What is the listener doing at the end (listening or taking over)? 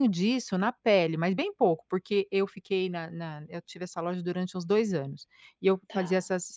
listening